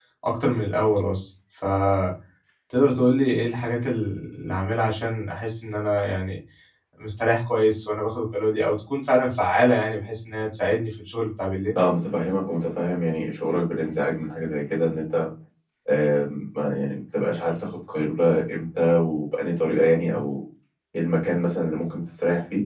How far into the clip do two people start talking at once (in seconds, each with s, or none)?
none